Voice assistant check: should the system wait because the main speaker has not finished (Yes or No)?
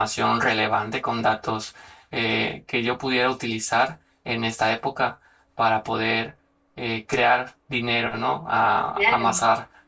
Yes